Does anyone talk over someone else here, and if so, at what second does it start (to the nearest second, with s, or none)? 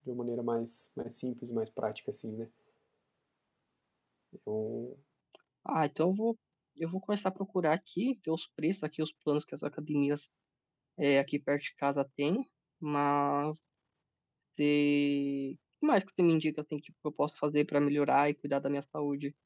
none